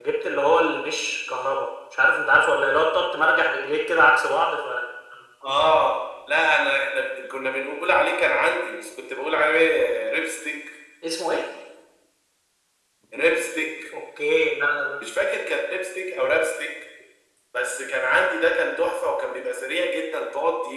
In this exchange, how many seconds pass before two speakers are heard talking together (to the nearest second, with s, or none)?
none